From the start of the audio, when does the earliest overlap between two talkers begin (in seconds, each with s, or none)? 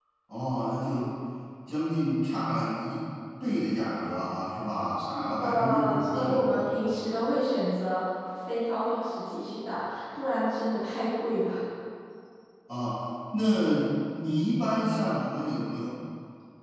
5.1 s